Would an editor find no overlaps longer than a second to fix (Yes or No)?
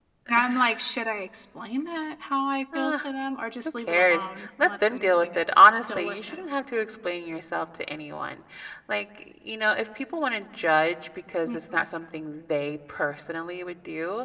No